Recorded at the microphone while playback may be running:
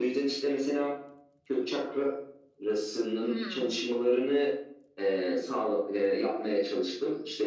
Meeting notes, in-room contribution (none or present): present